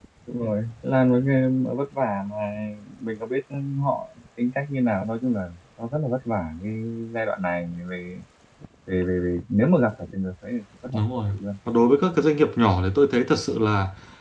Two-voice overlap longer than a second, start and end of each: none

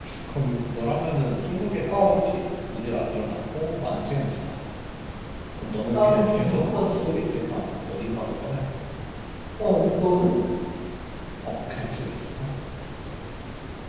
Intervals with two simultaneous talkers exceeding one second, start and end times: 5.9-7.2

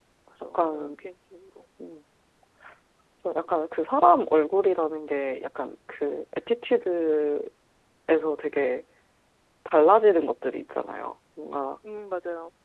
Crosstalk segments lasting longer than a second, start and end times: none

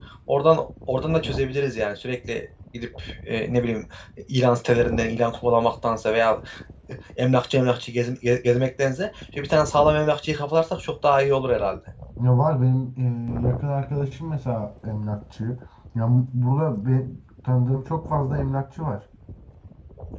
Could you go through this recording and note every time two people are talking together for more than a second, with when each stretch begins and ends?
none

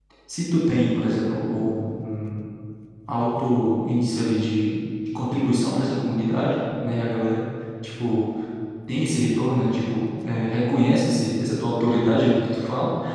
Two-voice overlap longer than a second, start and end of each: none

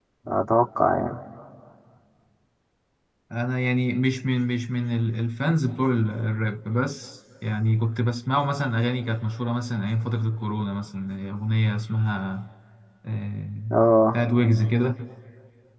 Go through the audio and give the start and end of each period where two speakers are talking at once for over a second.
none

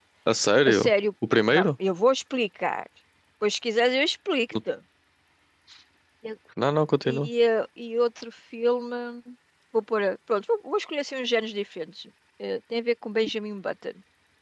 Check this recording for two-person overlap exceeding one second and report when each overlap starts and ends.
none

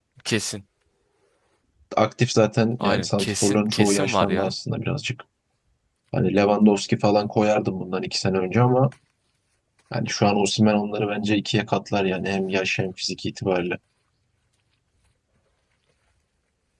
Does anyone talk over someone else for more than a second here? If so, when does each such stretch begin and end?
2.8-4.5

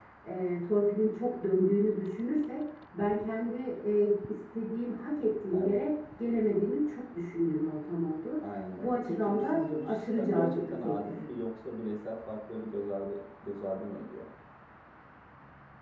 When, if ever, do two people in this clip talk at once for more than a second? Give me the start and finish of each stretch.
8.8-11.2

